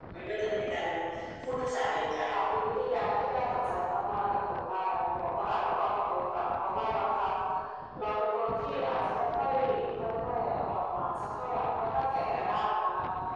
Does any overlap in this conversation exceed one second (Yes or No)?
No